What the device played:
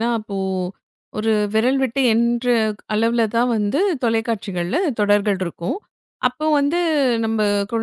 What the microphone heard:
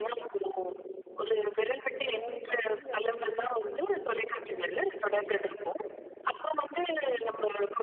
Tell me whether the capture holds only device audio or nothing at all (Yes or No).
No